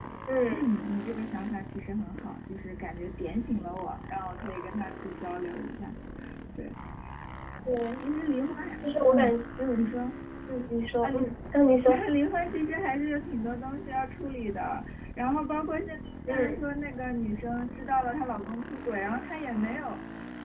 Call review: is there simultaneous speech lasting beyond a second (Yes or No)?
No